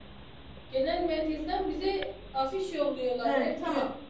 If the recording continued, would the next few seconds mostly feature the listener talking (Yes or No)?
Yes